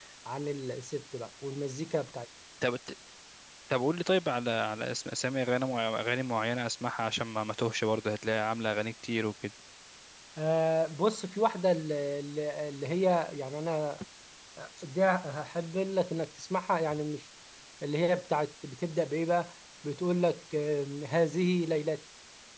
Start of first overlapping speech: none

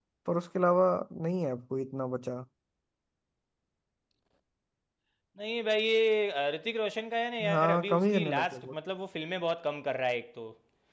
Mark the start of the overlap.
7 s

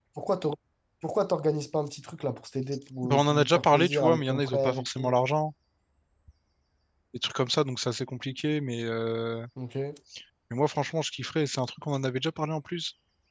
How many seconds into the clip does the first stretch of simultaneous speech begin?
3 s

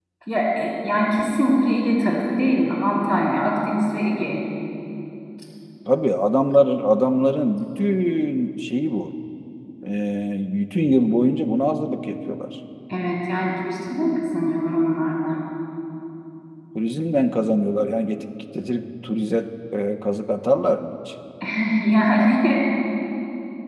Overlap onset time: none

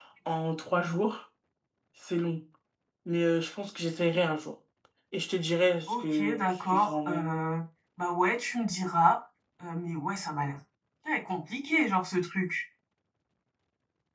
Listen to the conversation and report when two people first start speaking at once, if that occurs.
6 s

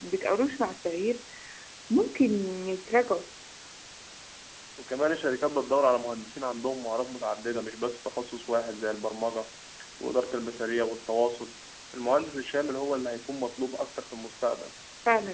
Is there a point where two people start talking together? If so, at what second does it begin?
none

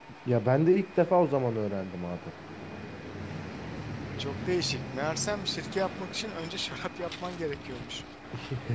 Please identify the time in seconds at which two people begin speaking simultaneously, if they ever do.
none

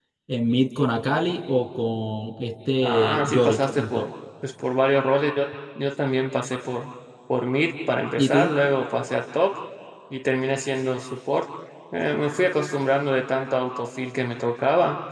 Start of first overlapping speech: 3 s

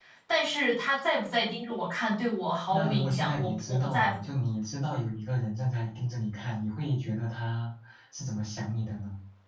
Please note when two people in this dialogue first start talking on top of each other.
3 s

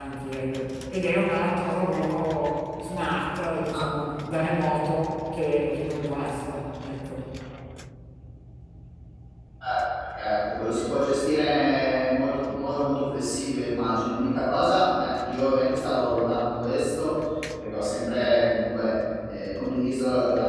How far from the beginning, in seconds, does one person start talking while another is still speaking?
none

